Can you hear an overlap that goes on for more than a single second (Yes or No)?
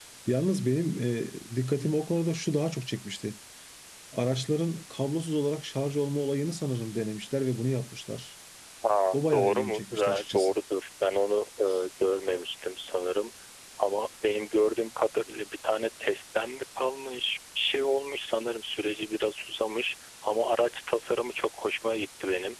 Yes